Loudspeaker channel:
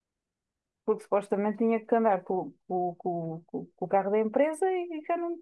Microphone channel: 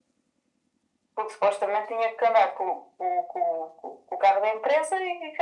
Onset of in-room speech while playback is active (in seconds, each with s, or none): none